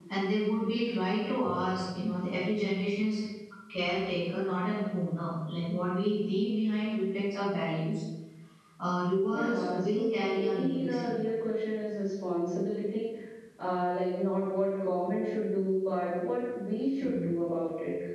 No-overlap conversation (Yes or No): No